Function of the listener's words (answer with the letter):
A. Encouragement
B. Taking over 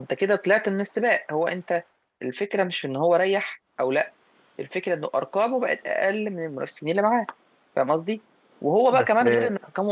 A